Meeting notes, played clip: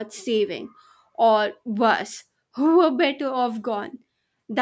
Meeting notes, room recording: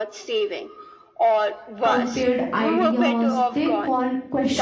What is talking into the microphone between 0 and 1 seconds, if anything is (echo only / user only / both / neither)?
echo only